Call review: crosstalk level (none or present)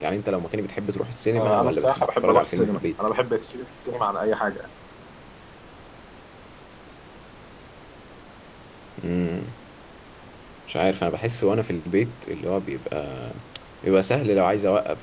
present